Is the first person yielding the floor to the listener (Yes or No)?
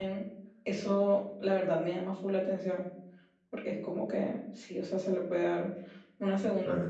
Yes